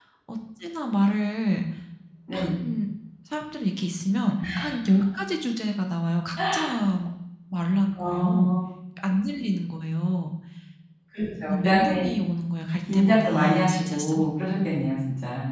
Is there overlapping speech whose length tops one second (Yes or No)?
Yes